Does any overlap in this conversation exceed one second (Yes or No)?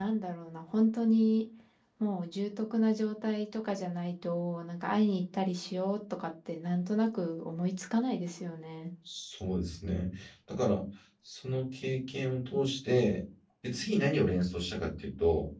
No